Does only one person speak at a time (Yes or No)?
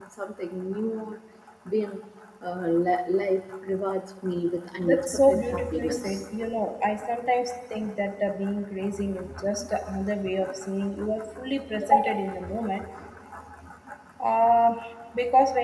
No